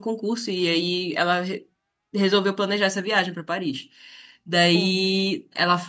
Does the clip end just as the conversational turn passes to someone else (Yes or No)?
No